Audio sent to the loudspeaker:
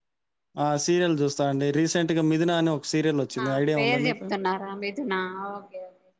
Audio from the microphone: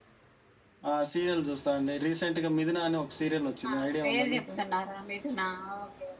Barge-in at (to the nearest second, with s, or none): none